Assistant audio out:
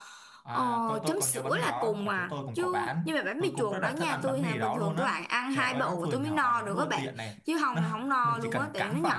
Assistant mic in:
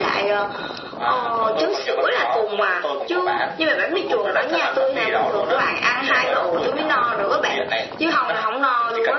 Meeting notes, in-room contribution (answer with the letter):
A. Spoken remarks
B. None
B